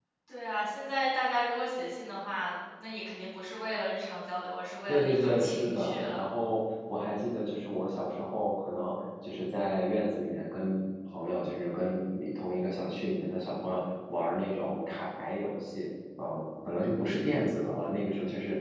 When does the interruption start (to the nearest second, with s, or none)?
5 s